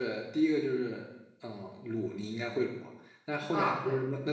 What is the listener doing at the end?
listening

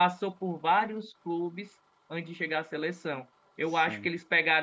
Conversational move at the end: listening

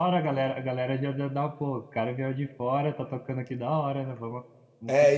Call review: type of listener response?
taking over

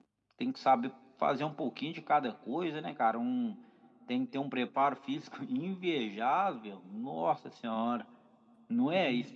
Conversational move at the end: taking over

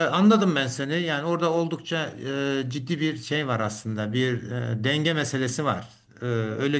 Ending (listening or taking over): listening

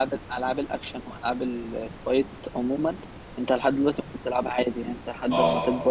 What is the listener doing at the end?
listening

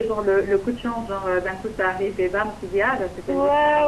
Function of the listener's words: taking over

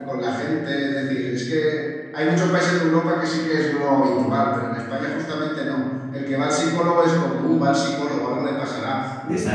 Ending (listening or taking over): listening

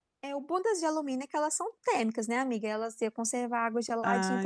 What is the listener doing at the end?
taking over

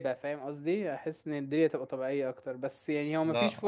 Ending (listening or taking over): listening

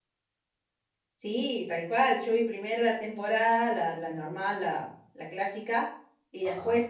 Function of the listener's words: listening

